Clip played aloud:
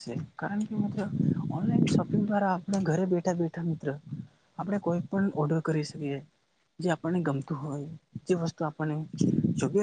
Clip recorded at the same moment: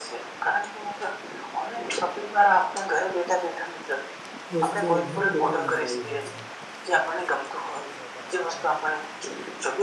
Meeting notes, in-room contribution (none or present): present